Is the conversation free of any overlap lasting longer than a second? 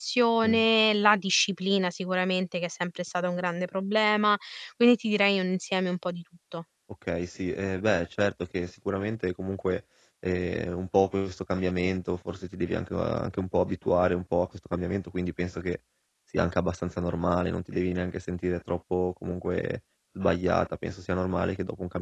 Yes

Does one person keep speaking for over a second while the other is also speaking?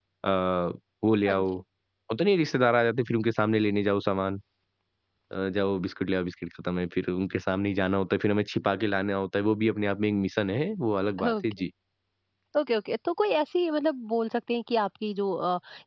No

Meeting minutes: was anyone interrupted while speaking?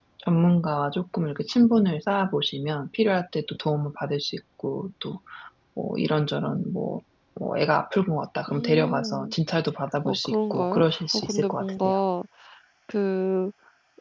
Yes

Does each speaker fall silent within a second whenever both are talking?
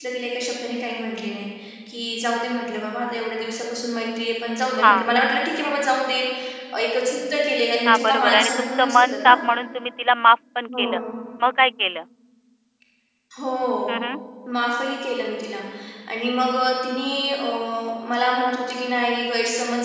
No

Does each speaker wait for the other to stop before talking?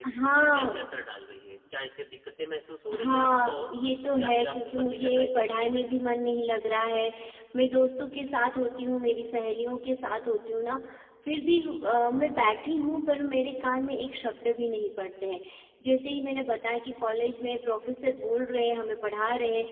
No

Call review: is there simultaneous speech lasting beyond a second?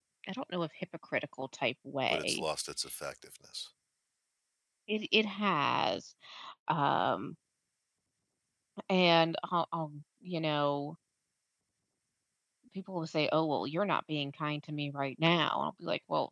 No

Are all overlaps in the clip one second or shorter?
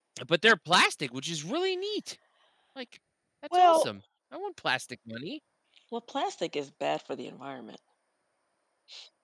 Yes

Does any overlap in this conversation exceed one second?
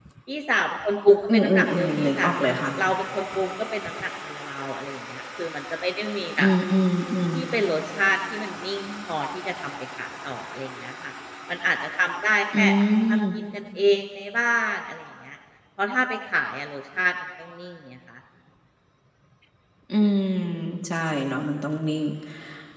Yes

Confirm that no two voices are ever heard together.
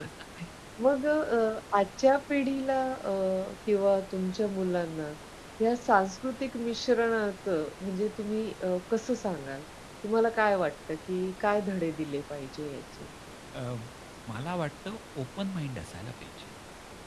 Yes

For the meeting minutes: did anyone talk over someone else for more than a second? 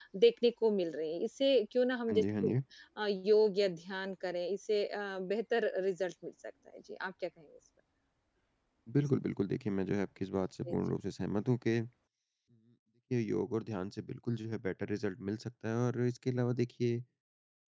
No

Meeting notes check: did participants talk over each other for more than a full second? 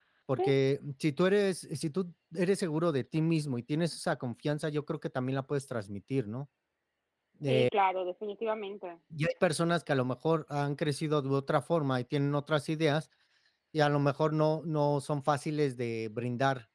No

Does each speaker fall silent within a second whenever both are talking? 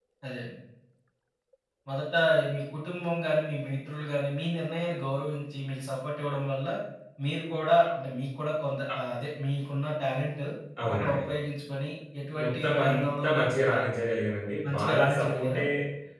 No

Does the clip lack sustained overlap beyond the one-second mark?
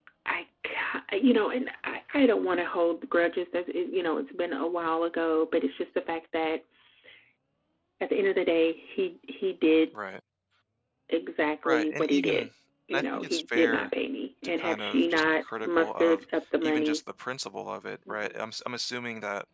No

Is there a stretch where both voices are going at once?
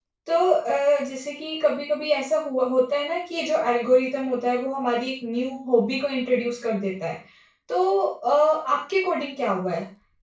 No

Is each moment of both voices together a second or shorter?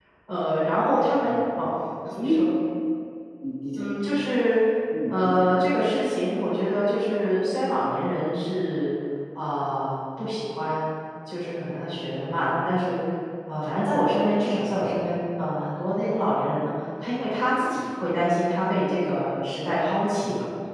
Yes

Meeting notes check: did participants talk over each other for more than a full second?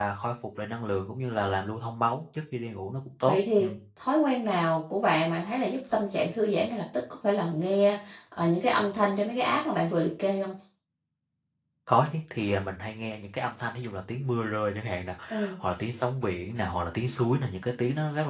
No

